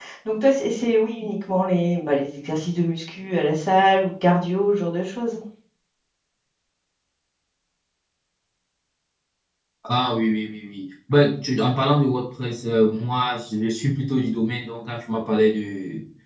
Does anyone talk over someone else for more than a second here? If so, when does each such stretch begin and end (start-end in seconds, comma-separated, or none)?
none